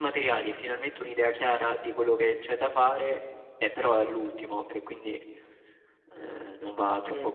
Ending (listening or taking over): taking over